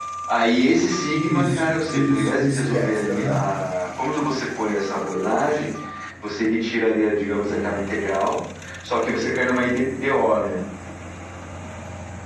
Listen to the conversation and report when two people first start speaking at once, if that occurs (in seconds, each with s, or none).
1.1 s